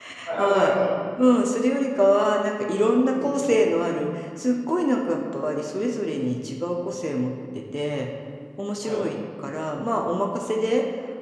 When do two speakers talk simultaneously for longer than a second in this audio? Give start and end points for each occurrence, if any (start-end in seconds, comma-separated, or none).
none